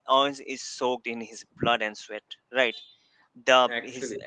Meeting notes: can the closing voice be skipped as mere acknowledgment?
Yes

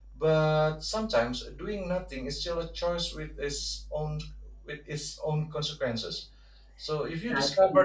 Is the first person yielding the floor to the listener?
Yes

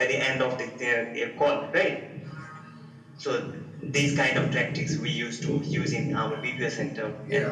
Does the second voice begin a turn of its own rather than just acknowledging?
Yes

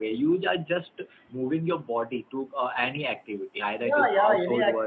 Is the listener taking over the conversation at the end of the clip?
Yes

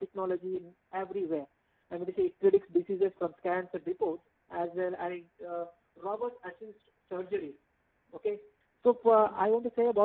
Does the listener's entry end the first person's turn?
No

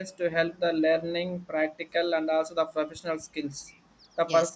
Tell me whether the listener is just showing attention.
Yes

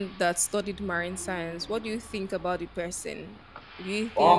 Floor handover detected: No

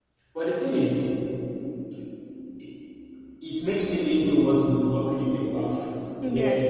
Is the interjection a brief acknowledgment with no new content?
Yes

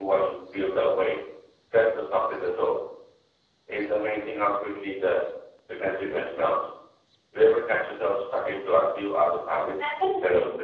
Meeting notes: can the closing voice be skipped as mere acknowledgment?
No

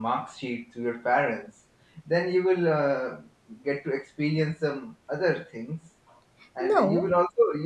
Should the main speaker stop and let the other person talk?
No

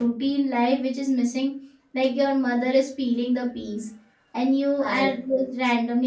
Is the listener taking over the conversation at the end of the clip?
No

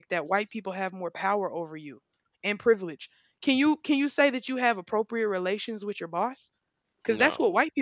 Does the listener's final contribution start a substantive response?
No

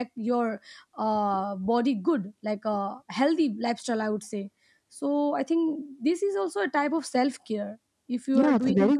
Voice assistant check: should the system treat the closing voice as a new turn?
Yes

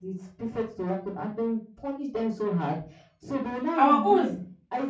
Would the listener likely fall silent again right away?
Yes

